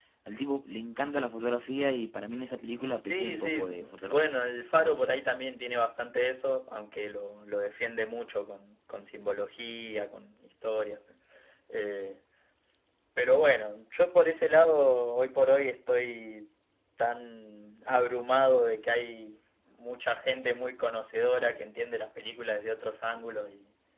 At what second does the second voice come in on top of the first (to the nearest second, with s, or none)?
3 s